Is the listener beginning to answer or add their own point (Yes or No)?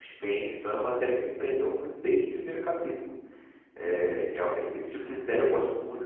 No